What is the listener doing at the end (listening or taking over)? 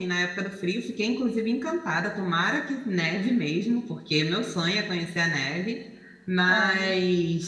listening